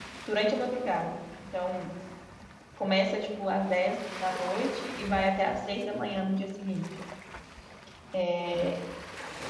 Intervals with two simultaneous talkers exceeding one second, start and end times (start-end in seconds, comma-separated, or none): none